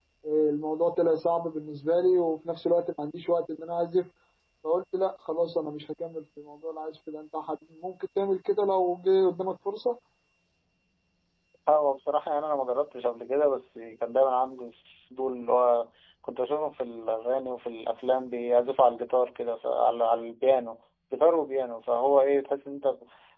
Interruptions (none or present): none